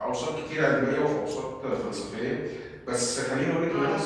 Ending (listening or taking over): listening